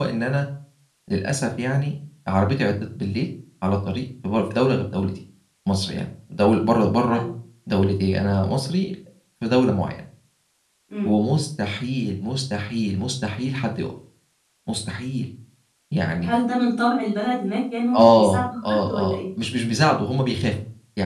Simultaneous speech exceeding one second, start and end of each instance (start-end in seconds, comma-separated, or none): 17.9-19.2